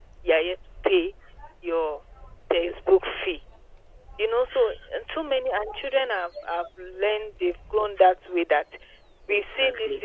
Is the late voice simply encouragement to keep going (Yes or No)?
Yes